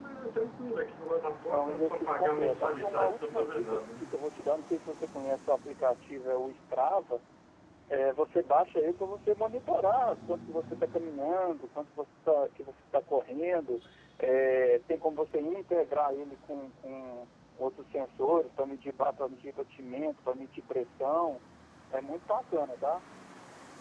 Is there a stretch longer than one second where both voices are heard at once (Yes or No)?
Yes